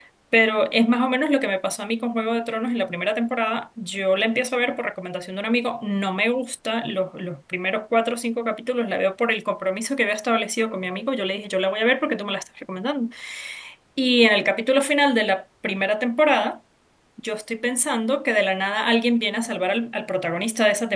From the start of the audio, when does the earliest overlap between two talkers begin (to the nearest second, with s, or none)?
none